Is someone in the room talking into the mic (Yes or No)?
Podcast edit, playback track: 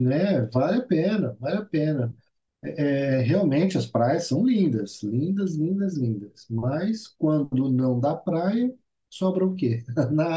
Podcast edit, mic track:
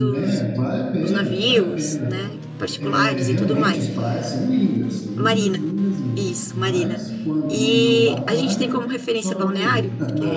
Yes